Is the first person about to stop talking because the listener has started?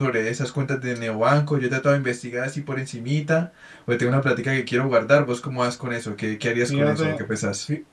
Yes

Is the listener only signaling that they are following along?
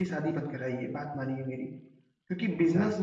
Yes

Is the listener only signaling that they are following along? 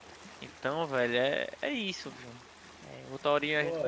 Yes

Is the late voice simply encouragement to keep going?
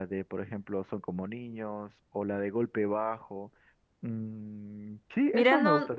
No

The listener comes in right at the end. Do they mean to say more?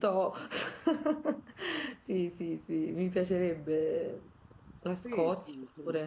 Yes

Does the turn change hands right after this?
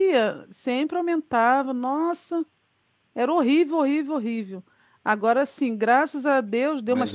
No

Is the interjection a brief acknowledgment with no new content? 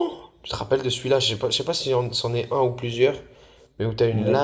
Yes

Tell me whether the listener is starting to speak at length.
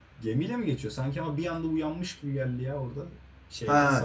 Yes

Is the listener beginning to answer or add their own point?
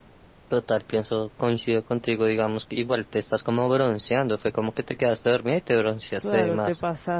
Yes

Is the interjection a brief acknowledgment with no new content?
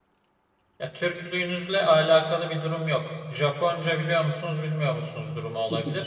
Yes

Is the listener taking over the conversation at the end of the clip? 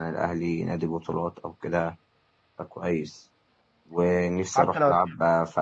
No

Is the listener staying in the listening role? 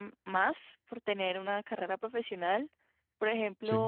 Yes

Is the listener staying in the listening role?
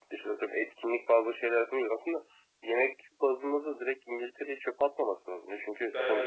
Yes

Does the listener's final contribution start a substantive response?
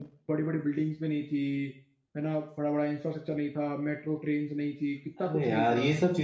Yes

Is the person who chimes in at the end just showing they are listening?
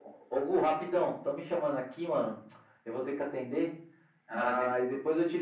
Yes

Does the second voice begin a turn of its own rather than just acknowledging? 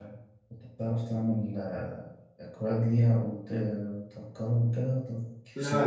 Yes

